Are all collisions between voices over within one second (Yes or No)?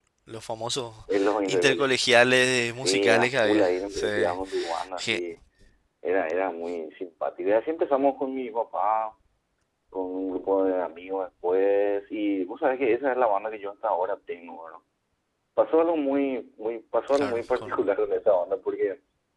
No